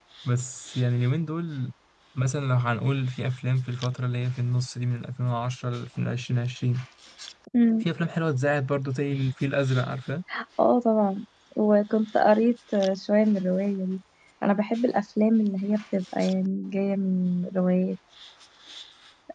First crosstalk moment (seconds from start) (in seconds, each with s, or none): none